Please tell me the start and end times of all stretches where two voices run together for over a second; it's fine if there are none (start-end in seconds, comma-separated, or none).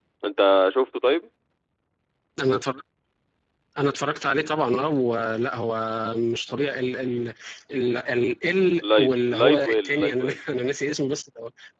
8.8-10.4